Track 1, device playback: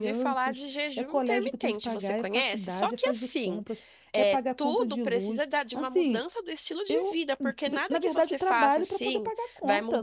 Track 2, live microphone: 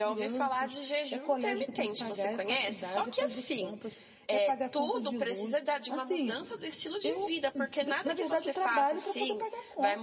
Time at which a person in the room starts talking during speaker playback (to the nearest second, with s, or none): none